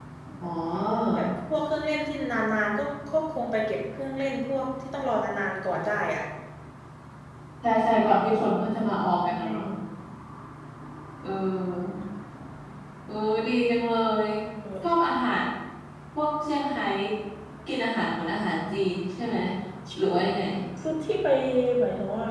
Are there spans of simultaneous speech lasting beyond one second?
No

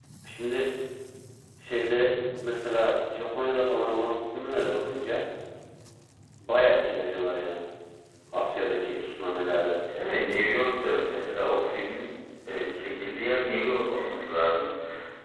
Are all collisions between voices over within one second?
Yes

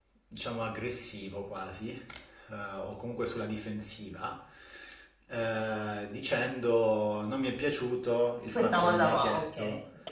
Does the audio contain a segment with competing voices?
Yes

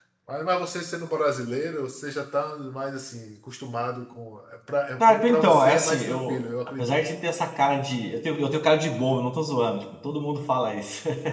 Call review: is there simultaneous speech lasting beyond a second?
Yes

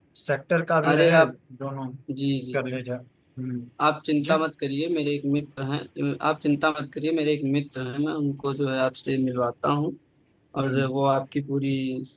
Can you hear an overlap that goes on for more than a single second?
No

